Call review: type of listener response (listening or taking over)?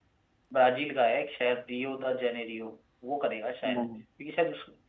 listening